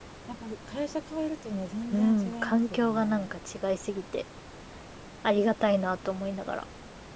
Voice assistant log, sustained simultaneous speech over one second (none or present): present